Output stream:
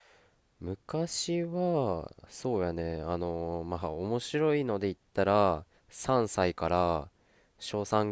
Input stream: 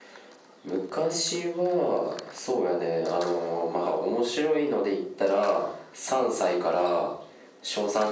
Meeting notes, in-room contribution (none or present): none